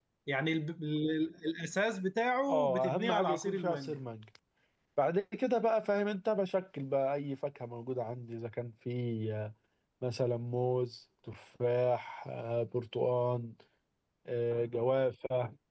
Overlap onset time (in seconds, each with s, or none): 2.5 s